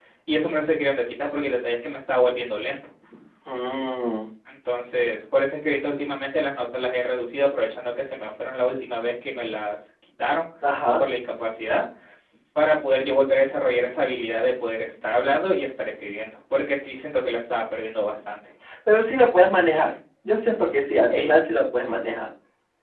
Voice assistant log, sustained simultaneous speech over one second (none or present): none